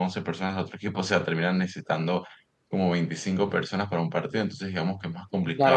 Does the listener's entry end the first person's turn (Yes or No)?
Yes